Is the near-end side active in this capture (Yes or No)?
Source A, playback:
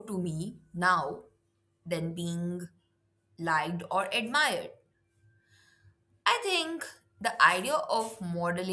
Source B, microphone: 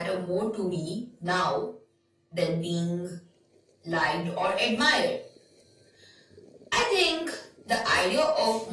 No